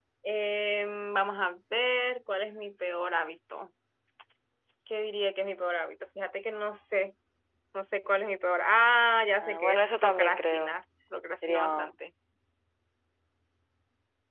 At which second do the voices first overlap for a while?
9.4 s

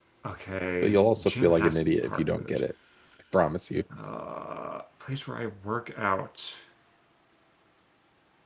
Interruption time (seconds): 0.8 s

